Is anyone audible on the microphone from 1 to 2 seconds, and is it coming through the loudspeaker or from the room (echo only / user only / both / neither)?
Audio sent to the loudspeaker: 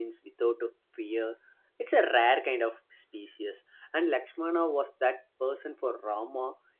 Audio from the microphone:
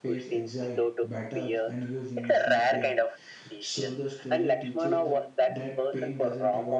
both